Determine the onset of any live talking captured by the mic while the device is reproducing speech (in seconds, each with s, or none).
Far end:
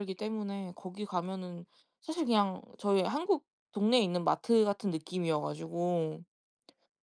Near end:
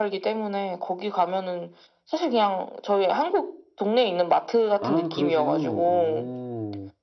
4.8 s